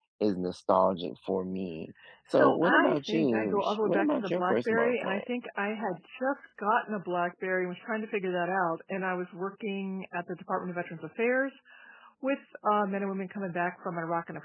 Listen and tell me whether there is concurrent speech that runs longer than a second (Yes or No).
Yes